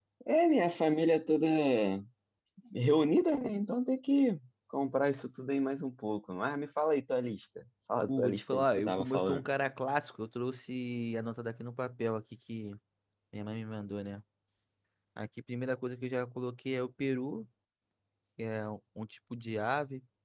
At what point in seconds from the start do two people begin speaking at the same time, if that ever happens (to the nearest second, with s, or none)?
8 s